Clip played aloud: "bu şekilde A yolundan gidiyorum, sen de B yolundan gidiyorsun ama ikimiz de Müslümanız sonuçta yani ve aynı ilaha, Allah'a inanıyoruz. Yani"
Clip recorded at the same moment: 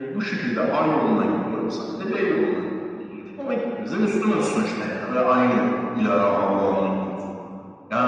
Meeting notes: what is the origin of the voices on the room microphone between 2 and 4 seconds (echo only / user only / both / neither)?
echo only